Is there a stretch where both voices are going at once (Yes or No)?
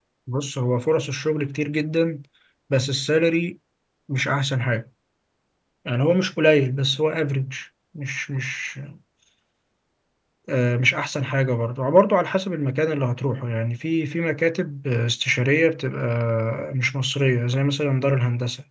No